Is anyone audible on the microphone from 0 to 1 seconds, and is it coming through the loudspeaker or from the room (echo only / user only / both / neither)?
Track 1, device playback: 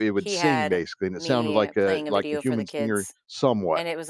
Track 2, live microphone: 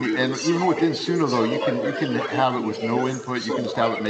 both